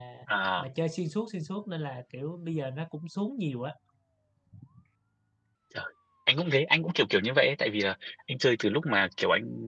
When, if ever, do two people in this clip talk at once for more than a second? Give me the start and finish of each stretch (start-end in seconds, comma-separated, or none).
none